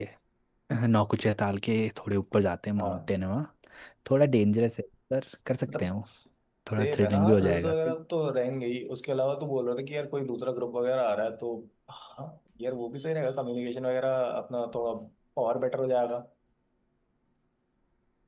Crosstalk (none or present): present